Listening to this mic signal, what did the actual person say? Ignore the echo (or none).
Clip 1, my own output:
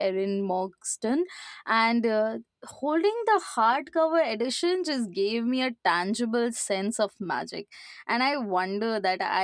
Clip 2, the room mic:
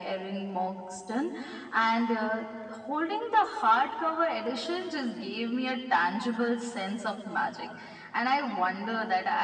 none